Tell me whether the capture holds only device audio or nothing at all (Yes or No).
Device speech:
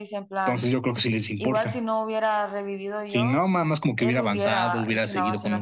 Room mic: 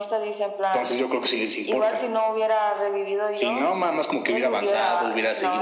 Yes